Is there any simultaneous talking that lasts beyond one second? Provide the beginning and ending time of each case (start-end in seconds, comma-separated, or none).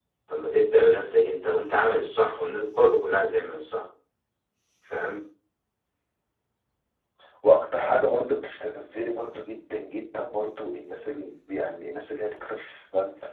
none